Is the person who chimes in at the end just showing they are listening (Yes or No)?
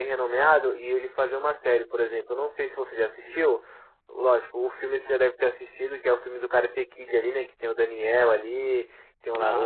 Yes